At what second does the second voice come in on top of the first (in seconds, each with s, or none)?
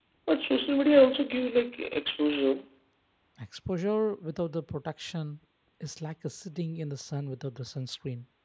none